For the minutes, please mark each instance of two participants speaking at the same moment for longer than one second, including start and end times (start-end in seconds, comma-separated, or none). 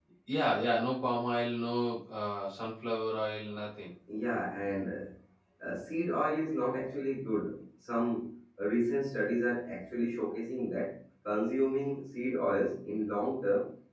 none